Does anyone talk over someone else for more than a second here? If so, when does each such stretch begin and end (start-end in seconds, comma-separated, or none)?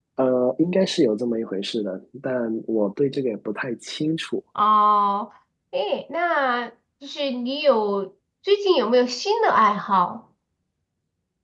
none